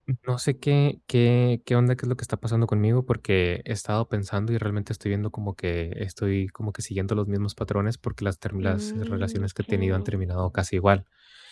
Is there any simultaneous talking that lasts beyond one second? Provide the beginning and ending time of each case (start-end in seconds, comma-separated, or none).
8.6-10.1